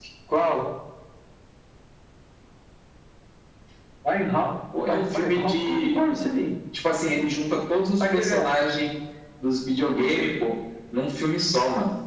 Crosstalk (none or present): present